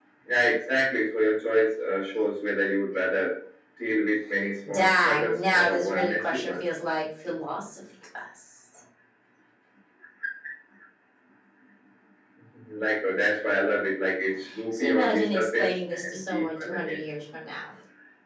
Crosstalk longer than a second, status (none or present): present